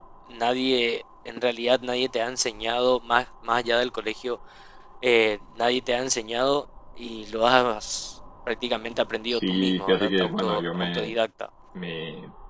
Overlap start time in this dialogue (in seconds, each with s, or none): 9.3 s